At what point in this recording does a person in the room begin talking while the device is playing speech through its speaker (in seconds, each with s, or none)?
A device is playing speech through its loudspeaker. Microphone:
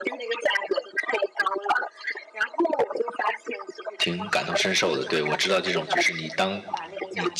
4.0 s